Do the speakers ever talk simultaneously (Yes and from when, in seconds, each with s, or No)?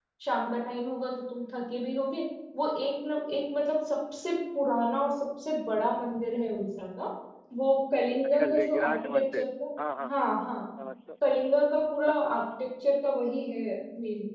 Yes, from 8.2 s